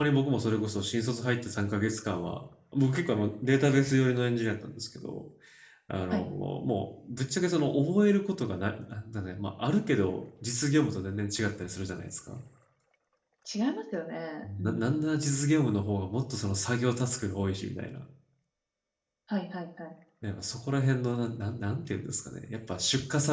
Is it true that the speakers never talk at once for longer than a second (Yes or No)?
Yes